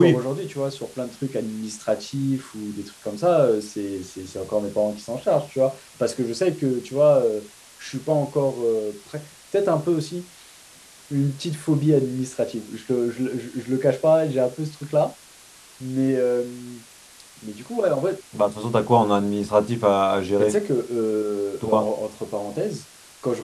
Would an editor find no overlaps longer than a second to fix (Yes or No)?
Yes